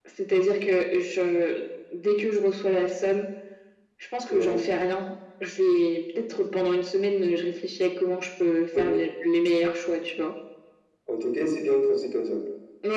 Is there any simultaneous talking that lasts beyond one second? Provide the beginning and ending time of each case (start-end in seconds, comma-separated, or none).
none